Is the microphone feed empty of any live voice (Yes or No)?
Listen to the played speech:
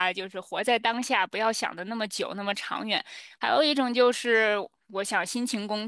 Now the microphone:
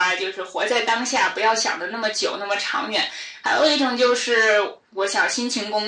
Yes